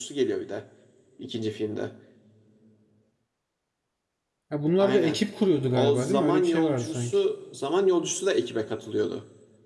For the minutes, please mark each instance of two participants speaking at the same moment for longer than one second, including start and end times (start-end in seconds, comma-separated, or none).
5.7-7.2